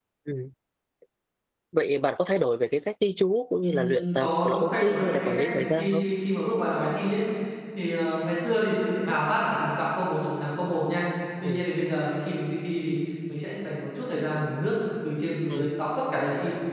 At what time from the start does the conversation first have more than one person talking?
3.6 s

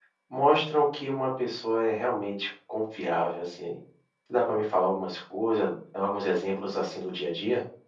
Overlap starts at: none

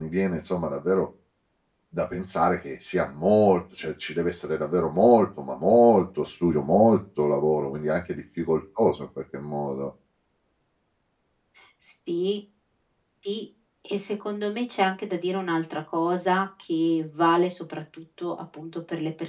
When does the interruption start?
none

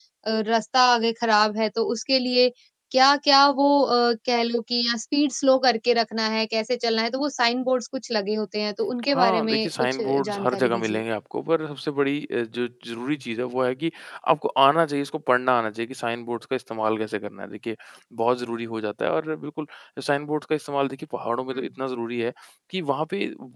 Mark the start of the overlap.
9.0 s

